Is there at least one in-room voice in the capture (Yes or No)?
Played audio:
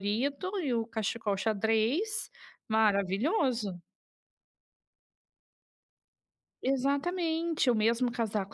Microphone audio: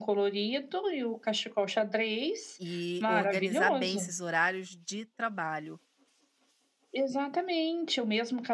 Yes